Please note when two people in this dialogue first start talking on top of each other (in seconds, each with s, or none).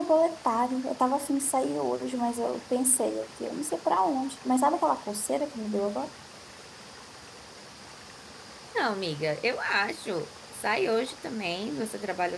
none